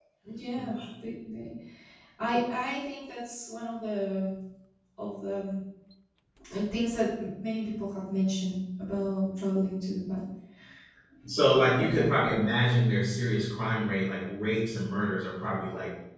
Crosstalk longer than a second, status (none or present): none